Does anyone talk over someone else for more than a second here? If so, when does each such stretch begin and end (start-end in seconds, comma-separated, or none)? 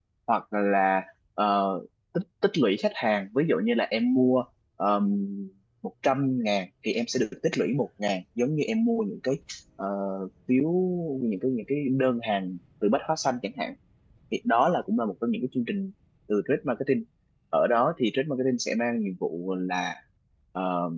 none